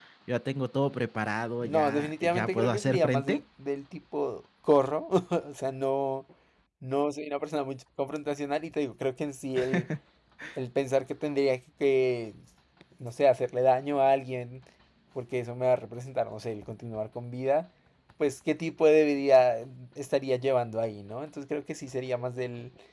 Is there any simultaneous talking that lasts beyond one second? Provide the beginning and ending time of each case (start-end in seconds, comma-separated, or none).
1.6-3.4